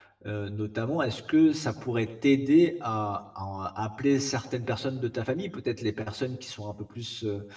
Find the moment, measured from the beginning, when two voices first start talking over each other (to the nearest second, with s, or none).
none